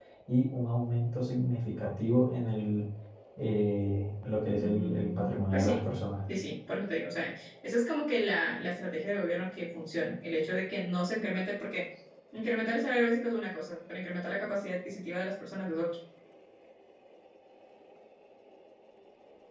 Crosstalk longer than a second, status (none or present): present